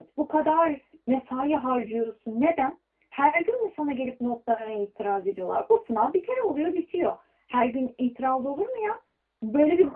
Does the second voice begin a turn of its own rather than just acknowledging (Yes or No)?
No